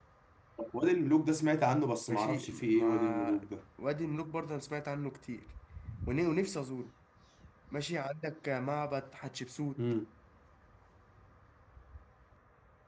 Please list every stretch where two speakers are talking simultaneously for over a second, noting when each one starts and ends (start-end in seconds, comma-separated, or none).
2.1-3.4